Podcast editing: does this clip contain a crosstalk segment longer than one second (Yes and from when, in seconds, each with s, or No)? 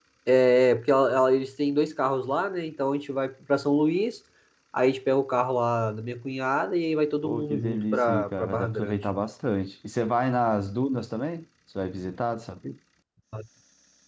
Yes, from 7.2 s